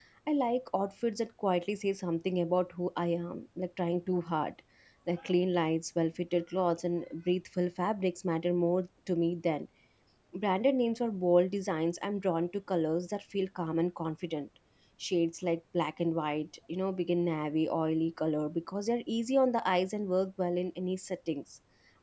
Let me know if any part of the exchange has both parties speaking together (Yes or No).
No